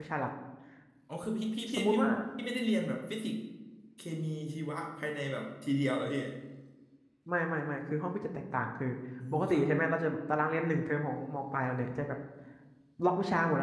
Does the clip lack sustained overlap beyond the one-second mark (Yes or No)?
Yes